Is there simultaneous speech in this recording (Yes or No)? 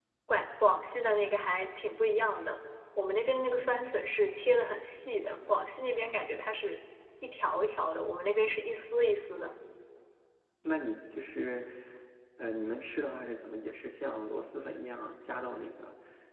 No